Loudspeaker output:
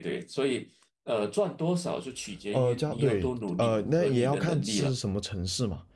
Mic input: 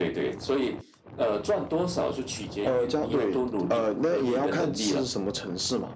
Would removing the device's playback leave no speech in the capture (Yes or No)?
Yes